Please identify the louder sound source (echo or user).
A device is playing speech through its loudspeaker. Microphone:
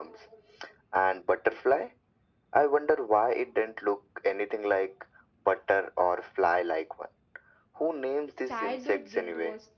echo